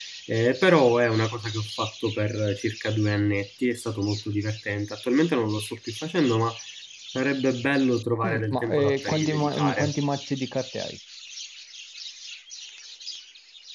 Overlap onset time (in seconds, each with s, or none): 8.2 s